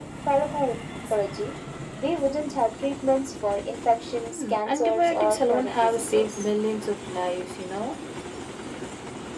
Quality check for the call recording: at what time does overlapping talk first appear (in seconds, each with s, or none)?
4.3 s